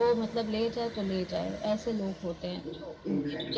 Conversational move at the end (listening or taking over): taking over